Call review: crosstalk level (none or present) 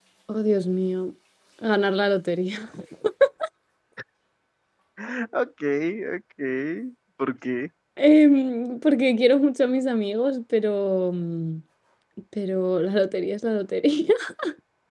none